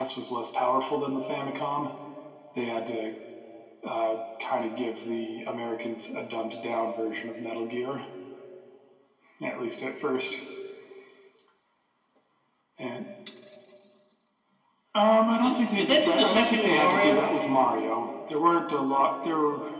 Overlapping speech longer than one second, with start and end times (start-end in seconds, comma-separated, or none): 15.4-17.2